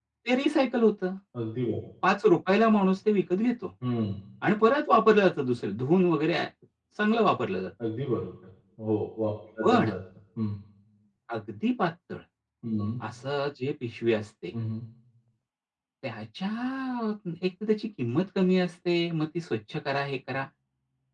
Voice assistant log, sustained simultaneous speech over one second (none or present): none